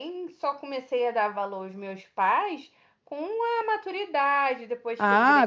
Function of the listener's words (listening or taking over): taking over